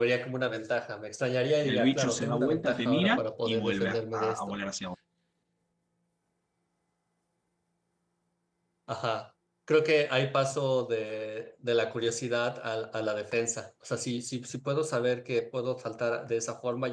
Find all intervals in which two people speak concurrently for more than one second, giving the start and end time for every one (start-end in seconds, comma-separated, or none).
1.6-4.6